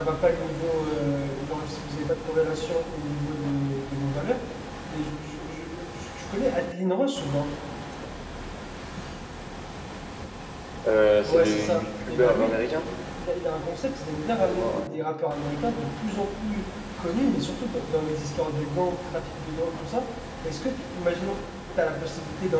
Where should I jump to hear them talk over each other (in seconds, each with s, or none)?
11.2 s